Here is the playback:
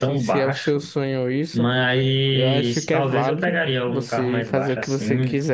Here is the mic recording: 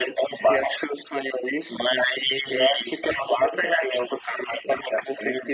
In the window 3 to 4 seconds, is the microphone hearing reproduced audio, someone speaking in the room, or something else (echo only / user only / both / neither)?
echo only